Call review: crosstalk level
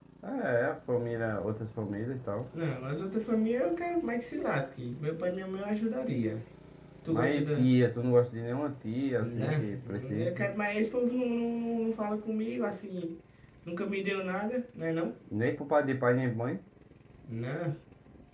present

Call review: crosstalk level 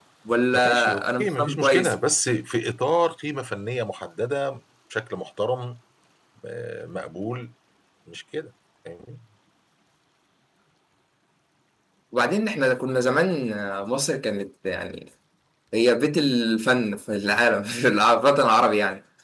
present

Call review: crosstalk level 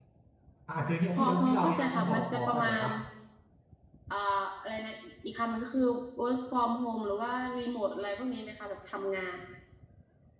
present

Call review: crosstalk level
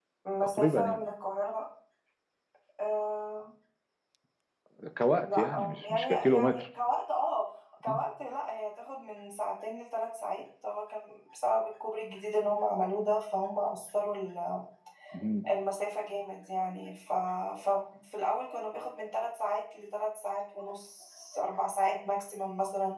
present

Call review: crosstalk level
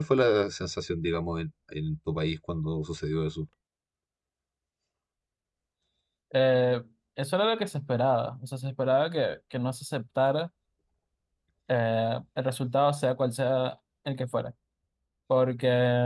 none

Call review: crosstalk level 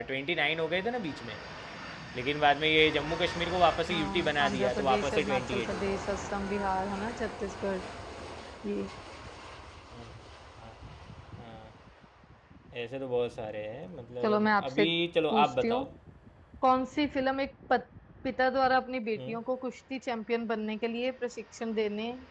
present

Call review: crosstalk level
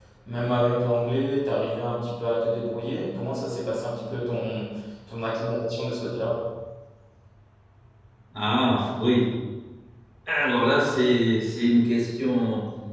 none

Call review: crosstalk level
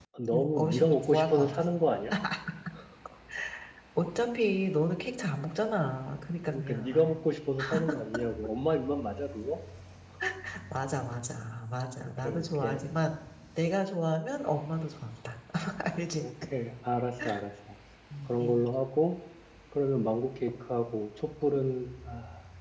present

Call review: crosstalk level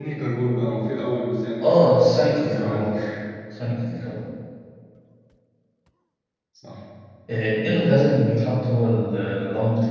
present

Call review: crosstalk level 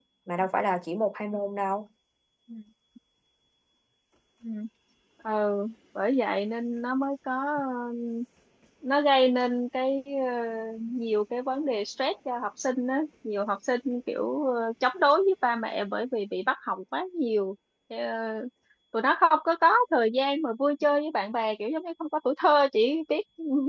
none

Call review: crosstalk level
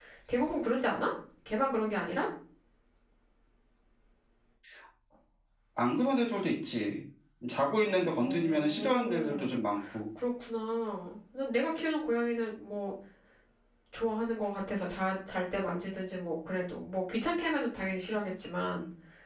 present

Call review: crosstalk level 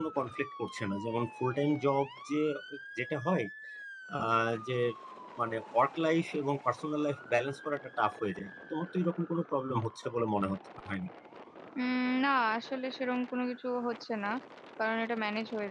none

